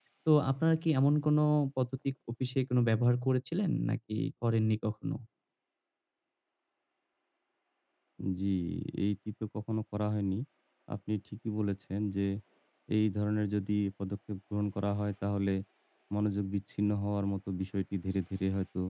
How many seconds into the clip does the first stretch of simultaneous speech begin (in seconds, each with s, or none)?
none